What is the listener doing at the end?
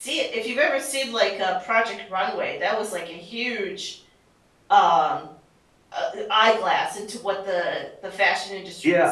taking over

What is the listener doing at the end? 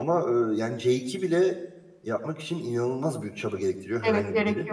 taking over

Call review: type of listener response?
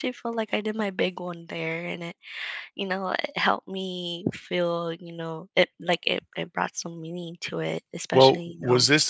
taking over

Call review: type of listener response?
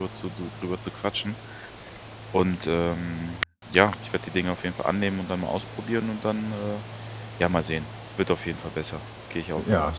taking over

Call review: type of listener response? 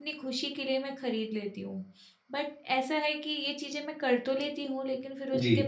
listening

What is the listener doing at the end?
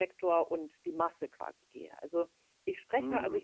listening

